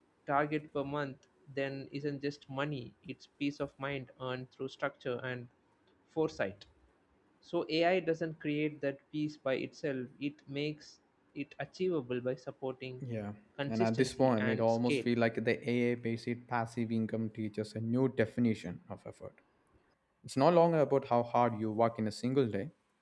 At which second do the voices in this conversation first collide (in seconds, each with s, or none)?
13.7 s